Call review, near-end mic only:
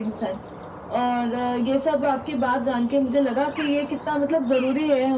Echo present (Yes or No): Yes